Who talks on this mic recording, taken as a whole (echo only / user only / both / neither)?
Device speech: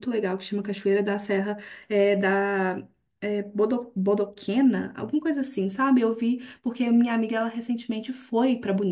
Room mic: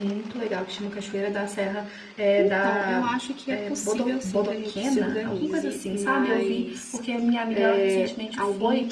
both